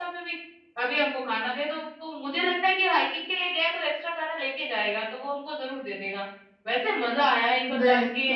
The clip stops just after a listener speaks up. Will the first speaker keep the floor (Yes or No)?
Yes